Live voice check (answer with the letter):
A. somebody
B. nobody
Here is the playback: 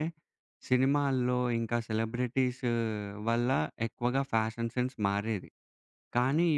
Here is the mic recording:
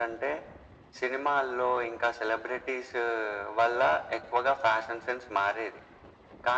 B